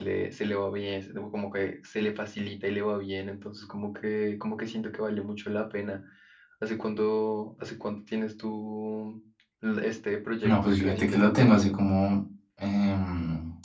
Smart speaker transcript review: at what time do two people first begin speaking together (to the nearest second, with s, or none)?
10 s